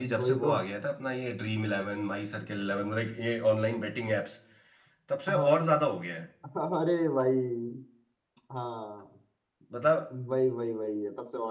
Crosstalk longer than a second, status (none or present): none